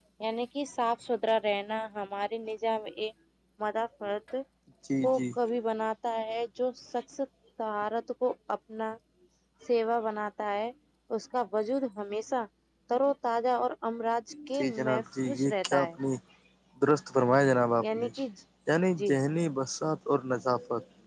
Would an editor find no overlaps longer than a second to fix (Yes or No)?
No